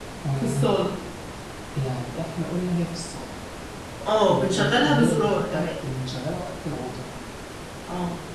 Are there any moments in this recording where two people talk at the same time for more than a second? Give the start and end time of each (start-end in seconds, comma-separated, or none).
4.3-5.7